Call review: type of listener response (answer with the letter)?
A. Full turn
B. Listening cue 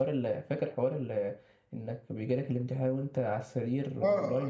A